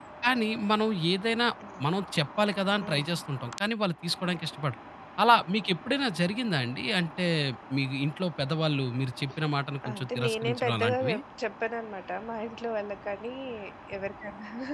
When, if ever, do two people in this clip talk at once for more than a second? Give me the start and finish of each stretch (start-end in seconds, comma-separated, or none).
9.9-11.2